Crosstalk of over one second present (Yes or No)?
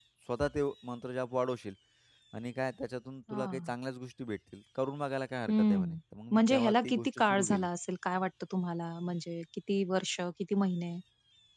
Yes